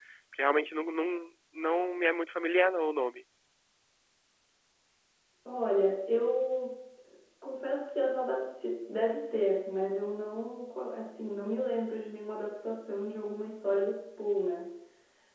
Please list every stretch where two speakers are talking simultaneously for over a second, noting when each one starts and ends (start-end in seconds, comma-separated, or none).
none